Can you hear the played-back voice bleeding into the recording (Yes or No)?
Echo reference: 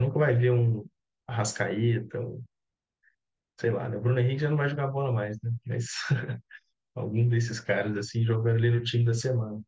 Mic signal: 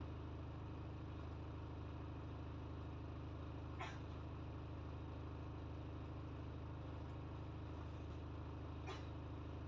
No